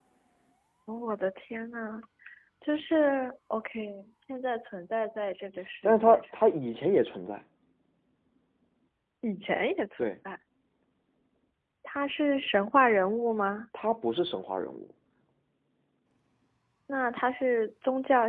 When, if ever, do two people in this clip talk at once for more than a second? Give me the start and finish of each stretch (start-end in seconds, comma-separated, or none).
none